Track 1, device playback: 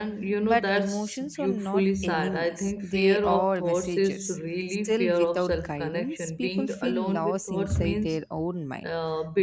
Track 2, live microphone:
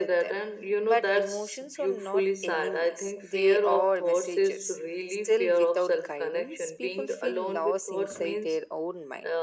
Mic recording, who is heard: echo only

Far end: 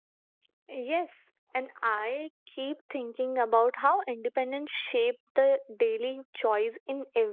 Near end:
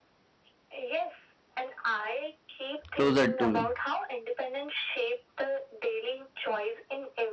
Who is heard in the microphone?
both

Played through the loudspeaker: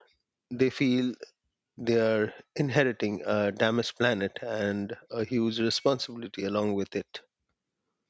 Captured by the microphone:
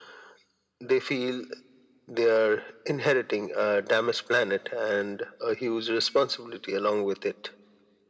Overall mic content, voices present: echo only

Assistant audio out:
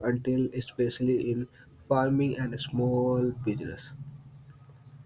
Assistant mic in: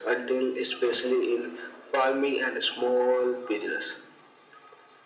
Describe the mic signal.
echo only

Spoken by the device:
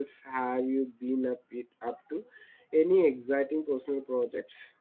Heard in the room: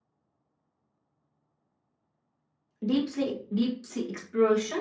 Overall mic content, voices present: user only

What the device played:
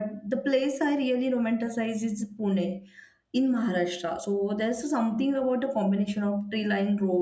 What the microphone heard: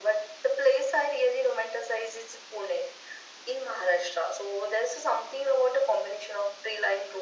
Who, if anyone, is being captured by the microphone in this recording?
echo only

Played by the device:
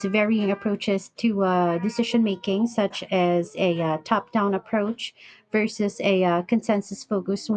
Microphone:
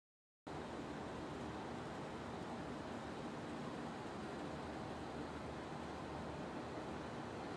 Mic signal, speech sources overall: neither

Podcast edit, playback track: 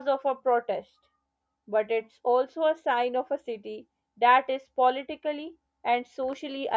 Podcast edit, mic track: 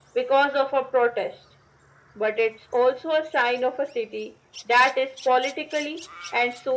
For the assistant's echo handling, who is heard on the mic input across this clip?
echo only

